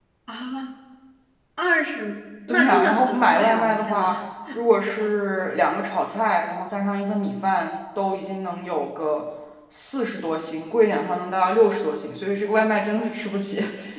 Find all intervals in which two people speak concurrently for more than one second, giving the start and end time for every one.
2.5-4.2

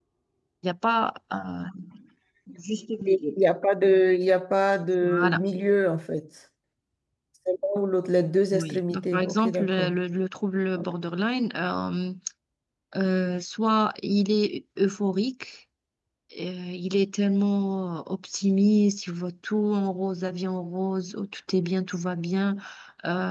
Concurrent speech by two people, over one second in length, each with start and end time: 8.5-9.9

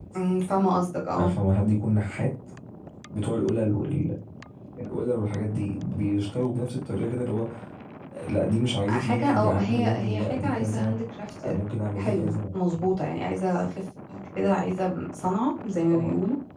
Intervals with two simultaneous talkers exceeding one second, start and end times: 8.9-11.0

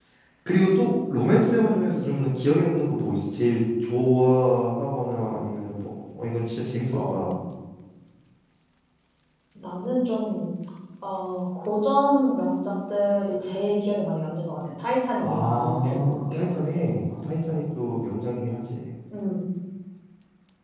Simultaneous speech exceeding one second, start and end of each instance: 15.2-16.8

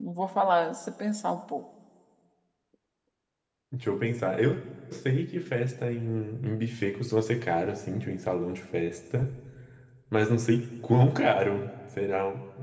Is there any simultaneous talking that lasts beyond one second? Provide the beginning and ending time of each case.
none

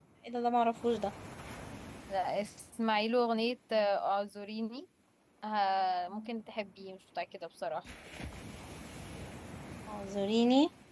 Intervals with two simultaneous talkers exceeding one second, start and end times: none

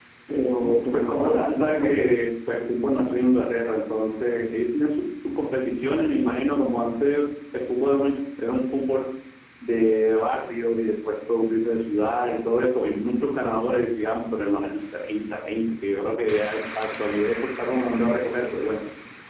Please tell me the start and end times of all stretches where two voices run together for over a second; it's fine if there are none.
0.9-2.2

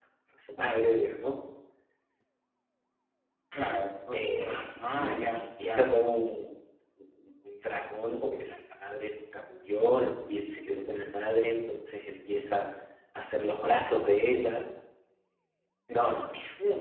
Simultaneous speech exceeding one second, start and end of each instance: 4.1-6.0

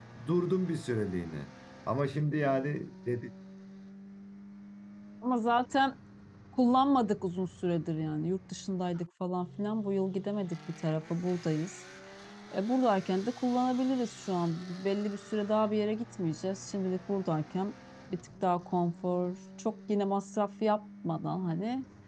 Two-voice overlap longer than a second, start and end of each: none

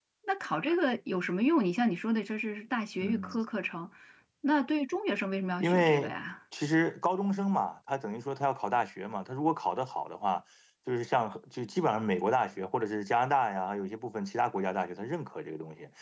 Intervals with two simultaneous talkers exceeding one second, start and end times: none

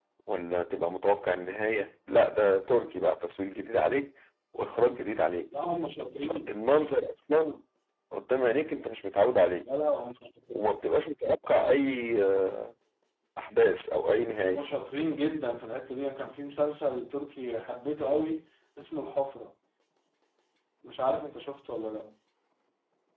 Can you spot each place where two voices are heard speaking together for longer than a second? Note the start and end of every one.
none

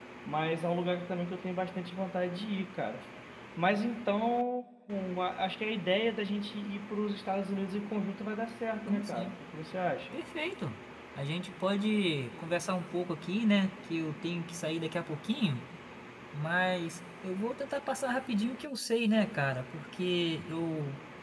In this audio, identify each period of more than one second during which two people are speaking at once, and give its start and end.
none

